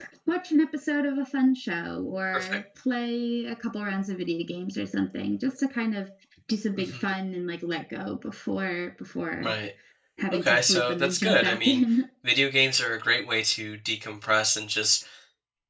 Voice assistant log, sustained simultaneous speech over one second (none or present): present